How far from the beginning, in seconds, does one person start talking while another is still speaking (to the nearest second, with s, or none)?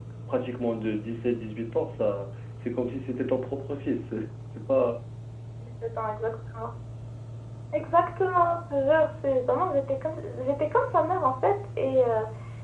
none